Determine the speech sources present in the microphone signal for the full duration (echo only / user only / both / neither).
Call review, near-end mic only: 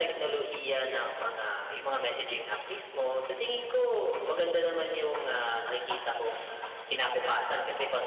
echo only